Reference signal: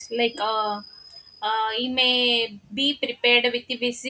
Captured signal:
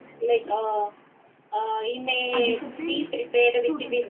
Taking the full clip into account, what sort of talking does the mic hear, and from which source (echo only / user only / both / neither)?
both